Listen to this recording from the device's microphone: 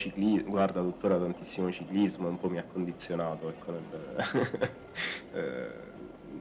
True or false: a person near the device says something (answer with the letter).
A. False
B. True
A